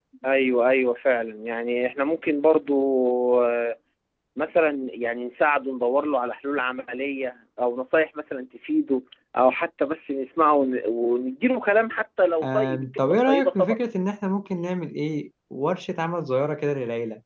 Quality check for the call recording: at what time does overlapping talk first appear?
12.4 s

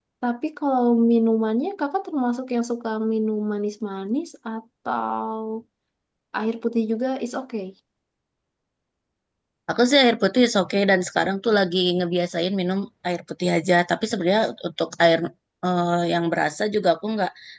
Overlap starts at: none

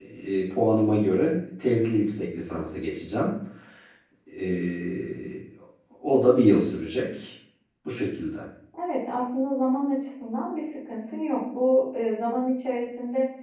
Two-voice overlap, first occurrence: none

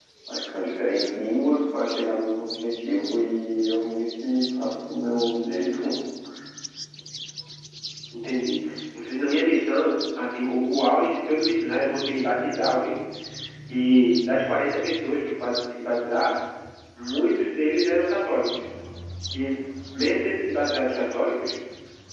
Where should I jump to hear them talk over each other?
none

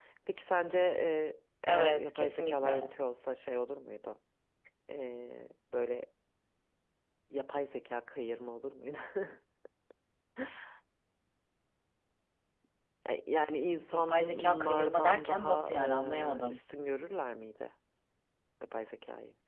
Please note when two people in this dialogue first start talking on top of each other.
1.7 s

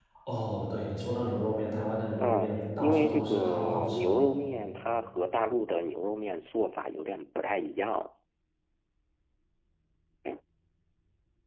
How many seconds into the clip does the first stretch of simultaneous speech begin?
2.2 s

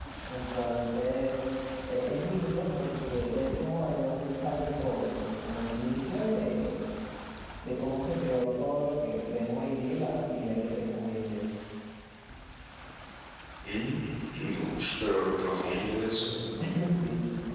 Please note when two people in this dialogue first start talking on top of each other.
none

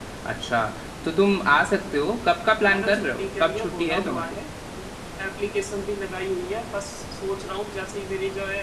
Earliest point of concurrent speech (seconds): 2.6 s

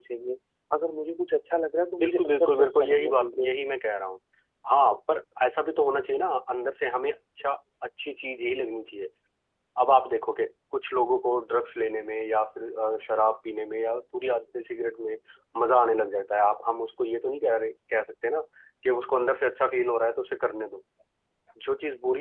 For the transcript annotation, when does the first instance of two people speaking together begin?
2.0 s

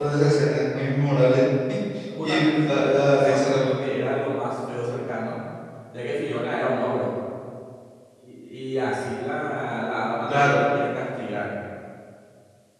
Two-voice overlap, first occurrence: 2.2 s

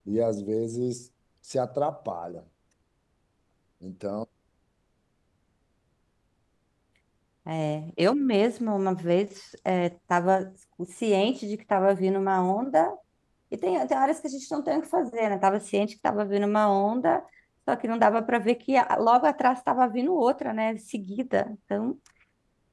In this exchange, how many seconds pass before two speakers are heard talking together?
none

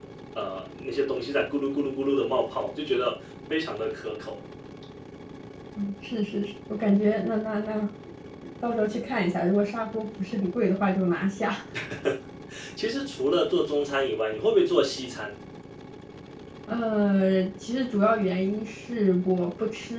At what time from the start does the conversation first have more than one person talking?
none

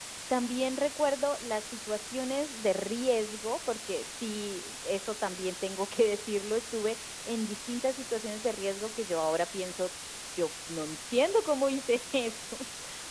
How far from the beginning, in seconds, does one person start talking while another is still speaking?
none

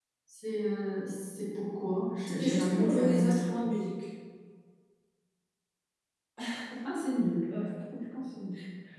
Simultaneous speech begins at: 2.4 s

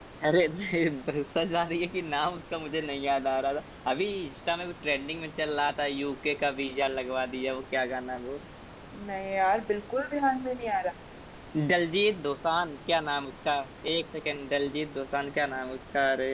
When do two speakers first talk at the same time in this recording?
none

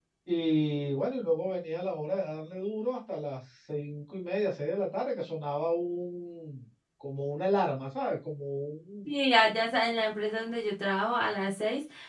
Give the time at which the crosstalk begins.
none

